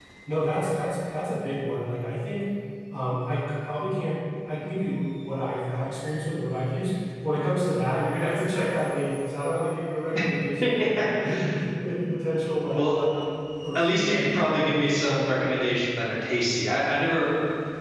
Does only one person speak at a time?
No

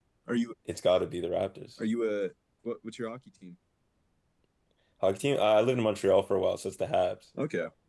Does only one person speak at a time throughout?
Yes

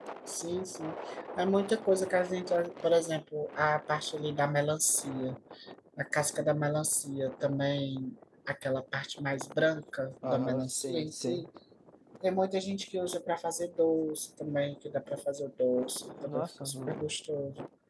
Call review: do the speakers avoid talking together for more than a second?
No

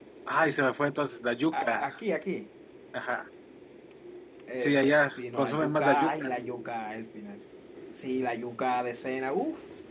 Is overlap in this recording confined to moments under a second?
No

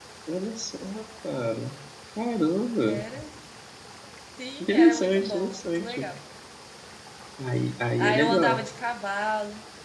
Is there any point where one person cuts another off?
Yes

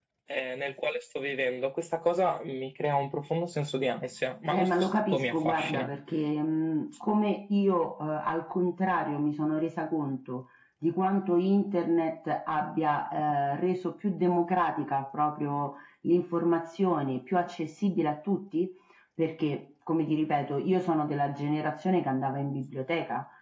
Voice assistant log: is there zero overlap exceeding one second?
No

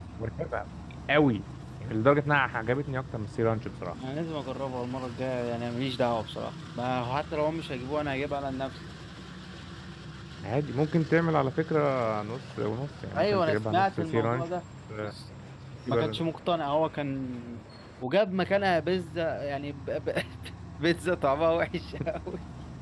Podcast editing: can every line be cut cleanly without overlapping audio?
No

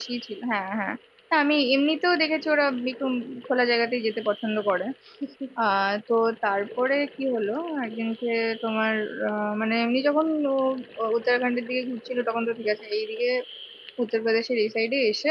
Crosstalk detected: No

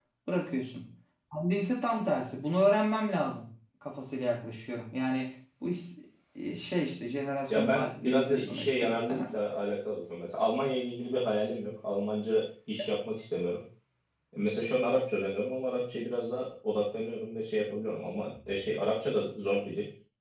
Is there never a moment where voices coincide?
No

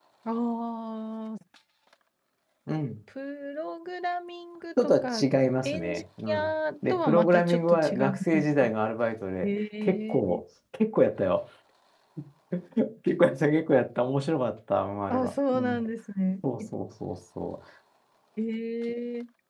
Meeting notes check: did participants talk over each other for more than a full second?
Yes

